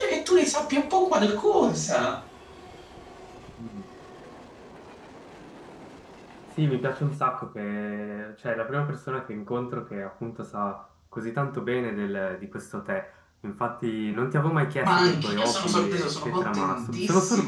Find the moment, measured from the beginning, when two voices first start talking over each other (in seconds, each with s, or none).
14.8 s